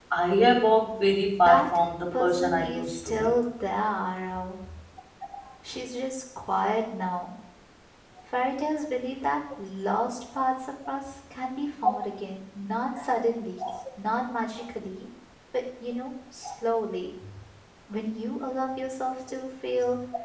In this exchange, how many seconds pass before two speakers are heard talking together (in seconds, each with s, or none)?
1.4 s